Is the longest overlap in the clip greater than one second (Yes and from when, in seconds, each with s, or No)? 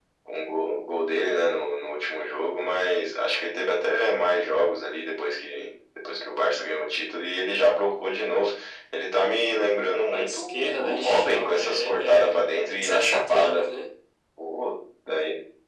Yes, from 10.1 s